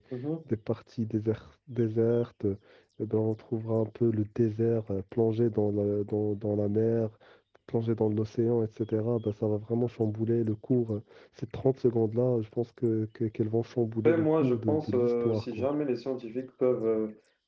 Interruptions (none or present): present